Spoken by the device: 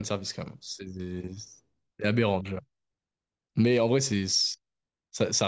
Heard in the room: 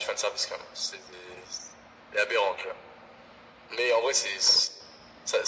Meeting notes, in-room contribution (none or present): none